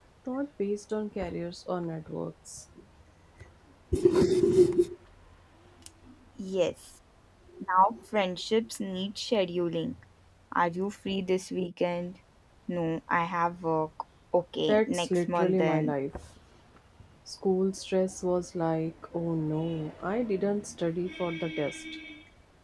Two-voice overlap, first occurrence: 15 s

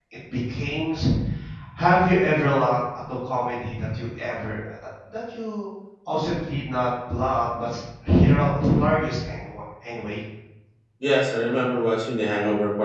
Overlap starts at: none

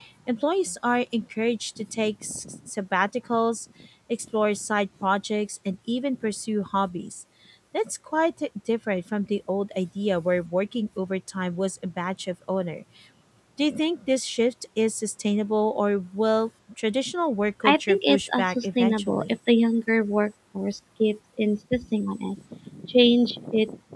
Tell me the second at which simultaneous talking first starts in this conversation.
18 s

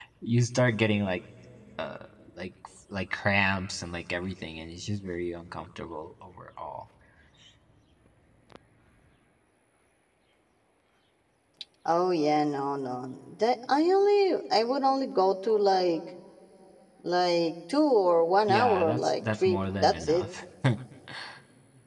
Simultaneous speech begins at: 18 s

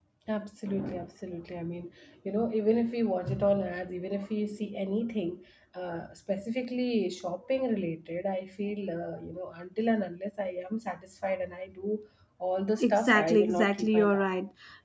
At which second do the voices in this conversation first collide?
13 s

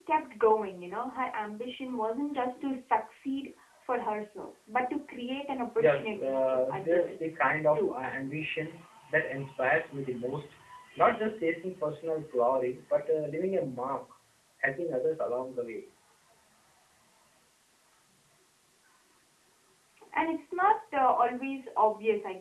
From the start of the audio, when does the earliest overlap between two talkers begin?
6 s

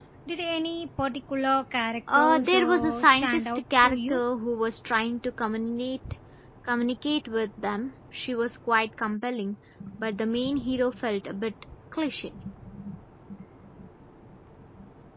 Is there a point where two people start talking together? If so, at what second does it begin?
2 s

